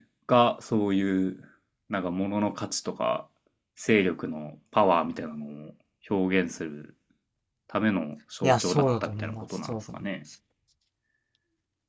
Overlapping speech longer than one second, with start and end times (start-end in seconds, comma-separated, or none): 8.4-10.0